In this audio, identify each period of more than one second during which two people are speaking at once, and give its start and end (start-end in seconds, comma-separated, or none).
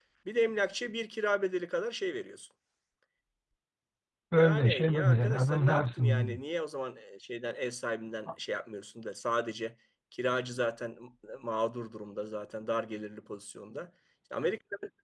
4.4-6.4